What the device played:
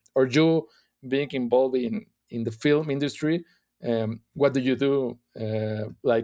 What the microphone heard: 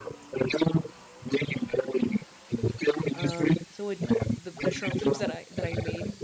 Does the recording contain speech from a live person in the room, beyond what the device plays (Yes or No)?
Yes